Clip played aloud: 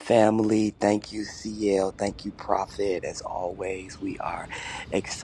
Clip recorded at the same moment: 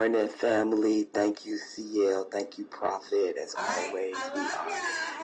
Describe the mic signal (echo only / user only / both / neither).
both